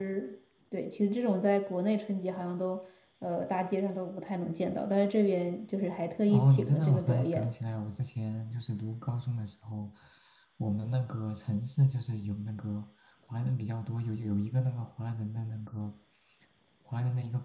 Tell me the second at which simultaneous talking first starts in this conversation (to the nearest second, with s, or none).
6 s